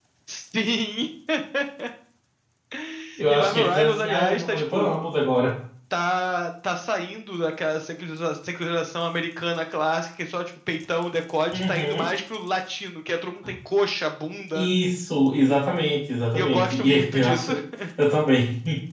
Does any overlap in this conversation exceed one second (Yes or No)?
Yes